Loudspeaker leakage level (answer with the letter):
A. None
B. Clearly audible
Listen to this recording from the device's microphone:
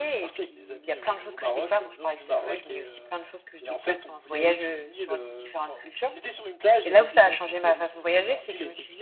B